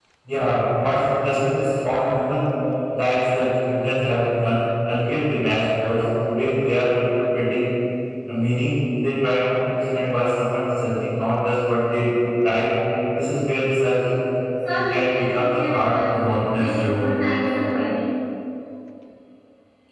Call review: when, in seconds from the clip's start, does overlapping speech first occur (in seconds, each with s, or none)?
14.7 s